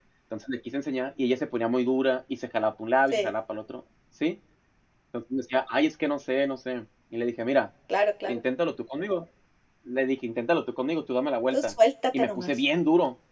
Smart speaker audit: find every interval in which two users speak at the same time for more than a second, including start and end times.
none

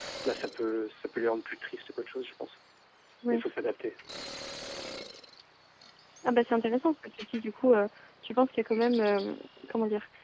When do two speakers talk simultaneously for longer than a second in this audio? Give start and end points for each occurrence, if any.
none

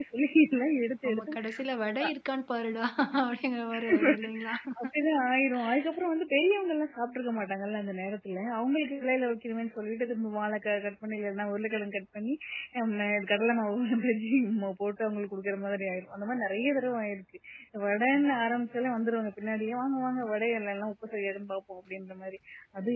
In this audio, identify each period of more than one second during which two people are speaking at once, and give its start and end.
none

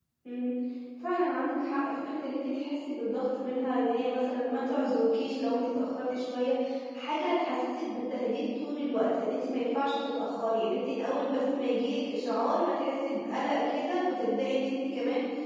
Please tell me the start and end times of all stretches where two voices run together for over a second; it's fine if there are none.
none

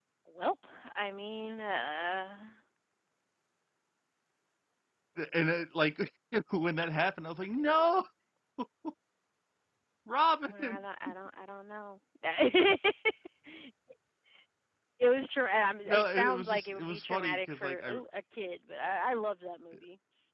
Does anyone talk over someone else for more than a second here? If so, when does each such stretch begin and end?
15.9-17.9

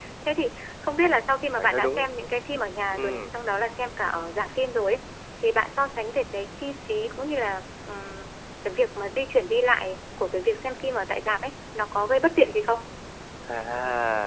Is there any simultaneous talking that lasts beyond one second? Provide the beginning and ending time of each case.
none

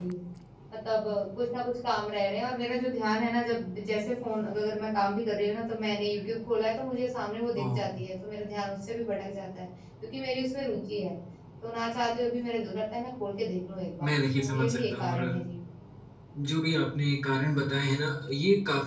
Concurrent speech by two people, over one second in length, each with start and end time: 14.0-15.3

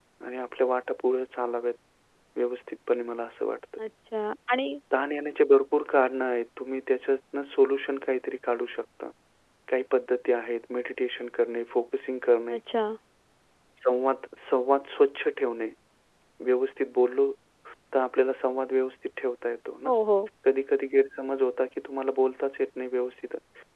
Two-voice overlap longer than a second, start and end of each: none

